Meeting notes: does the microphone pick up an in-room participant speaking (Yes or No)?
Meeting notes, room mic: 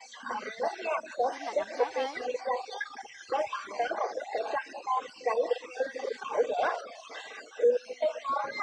Yes